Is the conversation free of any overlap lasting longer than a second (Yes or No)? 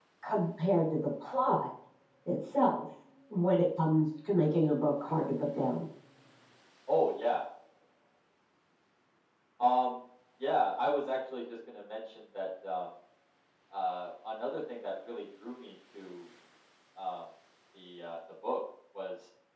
Yes